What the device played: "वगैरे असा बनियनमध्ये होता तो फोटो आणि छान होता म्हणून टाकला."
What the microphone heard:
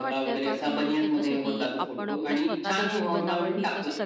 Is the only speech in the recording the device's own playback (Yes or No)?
No